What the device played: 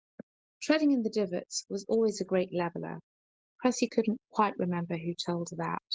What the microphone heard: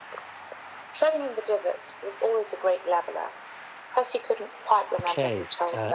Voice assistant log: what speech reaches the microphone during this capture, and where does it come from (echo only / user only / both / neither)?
both